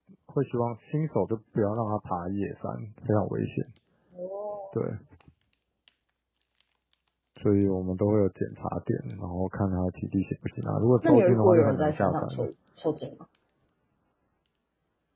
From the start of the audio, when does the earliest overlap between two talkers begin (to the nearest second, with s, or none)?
11 s